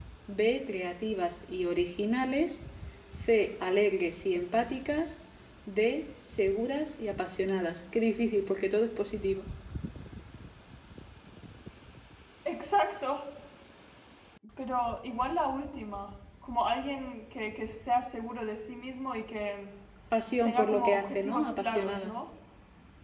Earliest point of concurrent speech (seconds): 20 s

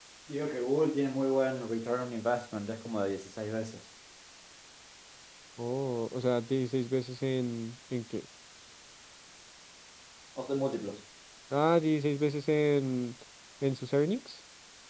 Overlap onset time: none

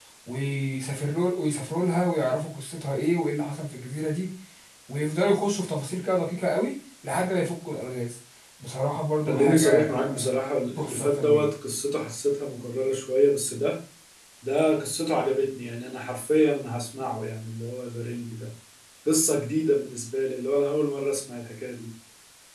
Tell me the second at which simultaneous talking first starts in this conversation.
9 s

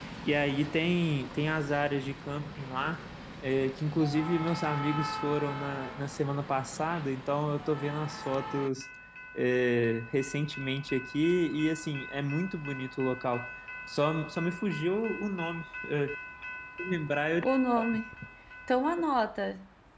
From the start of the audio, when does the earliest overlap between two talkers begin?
none

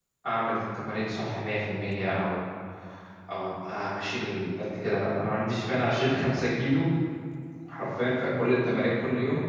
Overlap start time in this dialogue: none

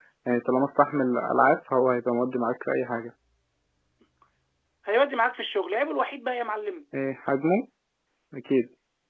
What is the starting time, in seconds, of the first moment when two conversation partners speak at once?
none

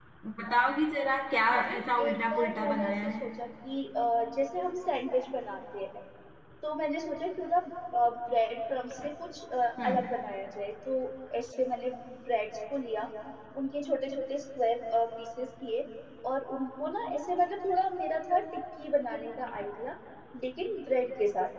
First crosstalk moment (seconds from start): 1 s

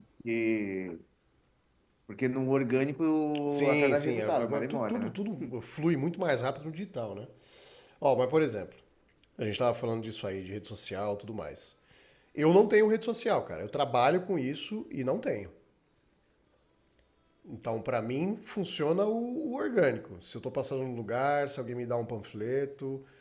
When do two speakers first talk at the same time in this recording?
3 s

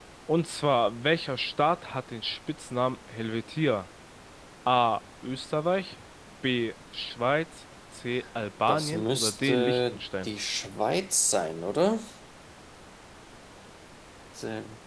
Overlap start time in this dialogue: 9 s

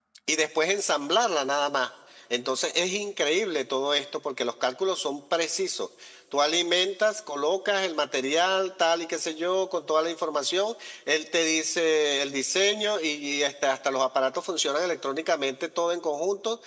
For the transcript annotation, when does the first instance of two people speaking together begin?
none

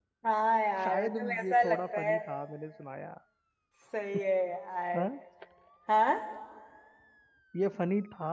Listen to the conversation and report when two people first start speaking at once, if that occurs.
1 s

